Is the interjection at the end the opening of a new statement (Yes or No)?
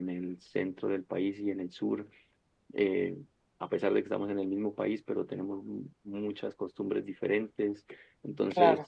No